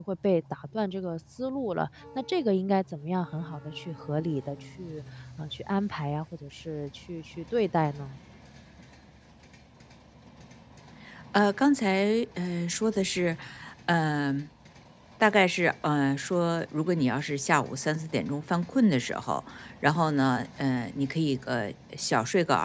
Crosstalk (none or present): none